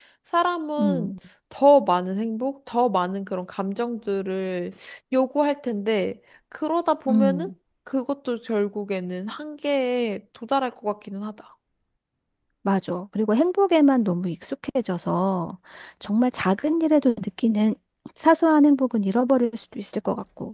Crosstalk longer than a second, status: none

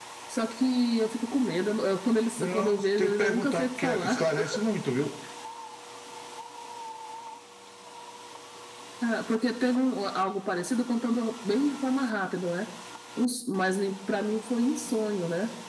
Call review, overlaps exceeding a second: present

